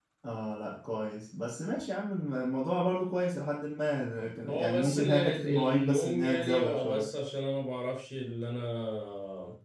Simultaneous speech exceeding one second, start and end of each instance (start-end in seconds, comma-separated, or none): 4.5-7.1